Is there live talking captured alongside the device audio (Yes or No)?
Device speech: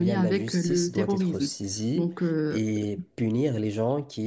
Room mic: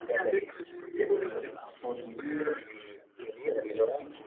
Yes